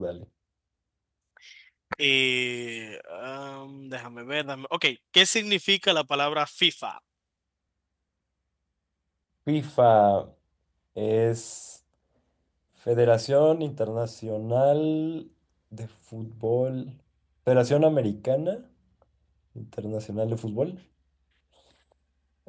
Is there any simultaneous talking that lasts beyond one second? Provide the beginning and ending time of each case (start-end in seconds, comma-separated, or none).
none